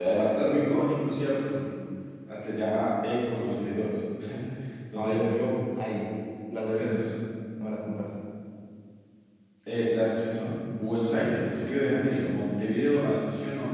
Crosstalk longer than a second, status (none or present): none